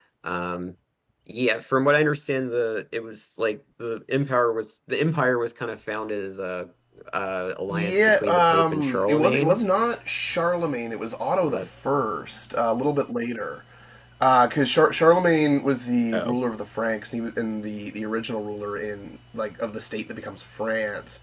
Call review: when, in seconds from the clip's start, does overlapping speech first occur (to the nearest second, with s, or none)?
8 s